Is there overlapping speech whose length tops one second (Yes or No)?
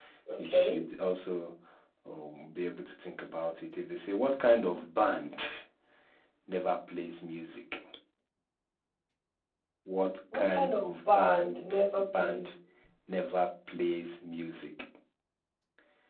Yes